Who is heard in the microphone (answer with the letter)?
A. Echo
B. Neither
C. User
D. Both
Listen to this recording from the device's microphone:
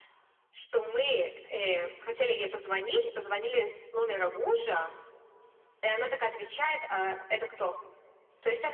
A